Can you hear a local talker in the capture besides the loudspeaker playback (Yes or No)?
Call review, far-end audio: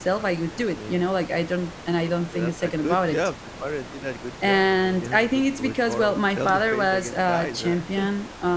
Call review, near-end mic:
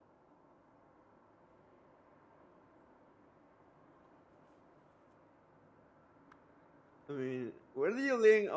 Yes